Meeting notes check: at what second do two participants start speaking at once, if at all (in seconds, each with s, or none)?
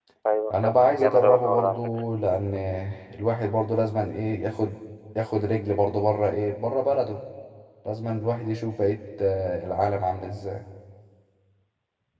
0.5 s